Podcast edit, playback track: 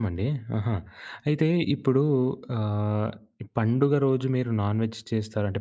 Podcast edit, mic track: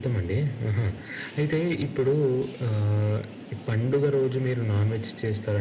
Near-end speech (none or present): none